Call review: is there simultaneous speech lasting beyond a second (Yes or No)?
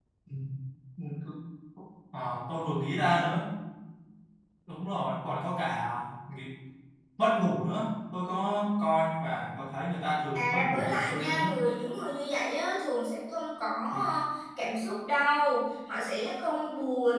Yes